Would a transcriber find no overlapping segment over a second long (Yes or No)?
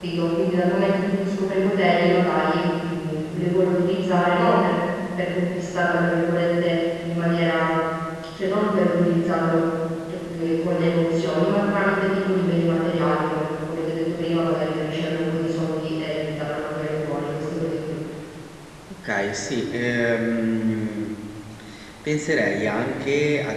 Yes